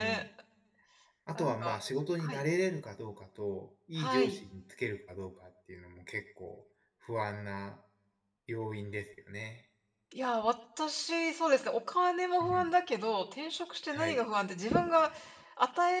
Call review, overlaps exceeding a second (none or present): none